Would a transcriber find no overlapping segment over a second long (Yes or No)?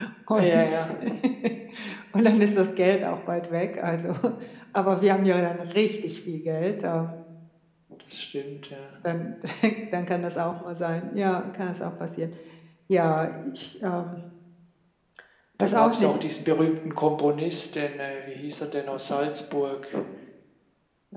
Yes